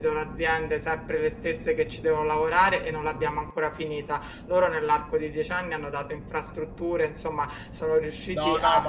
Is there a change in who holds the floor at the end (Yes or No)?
Yes